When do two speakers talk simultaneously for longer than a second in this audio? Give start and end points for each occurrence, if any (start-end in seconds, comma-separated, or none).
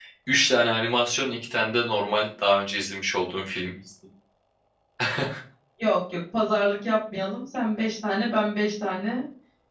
none